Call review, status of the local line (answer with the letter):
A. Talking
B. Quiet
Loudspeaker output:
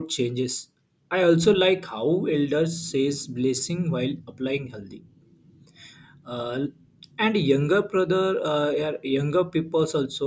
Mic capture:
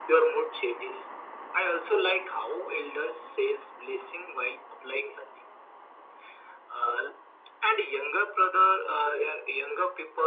B